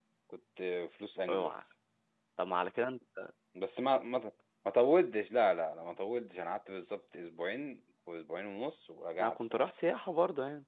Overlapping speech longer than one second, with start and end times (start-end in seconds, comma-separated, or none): none